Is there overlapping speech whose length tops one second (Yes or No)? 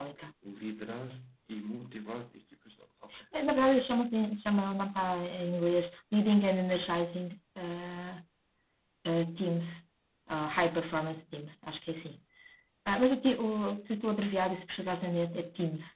No